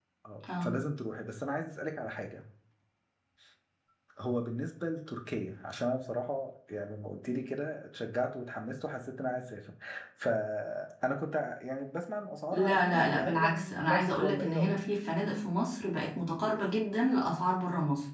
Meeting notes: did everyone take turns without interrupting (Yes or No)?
No